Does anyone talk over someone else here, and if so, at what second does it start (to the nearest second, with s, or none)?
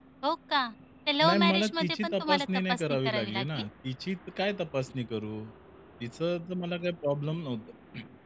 1 s